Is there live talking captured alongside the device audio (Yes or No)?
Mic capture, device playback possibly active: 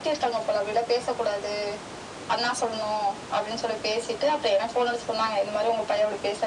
No